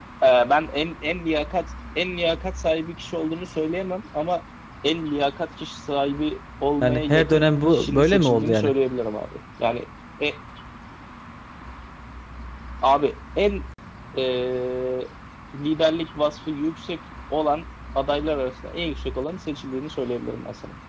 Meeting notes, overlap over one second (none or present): present